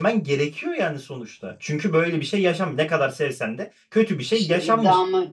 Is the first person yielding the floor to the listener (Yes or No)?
Yes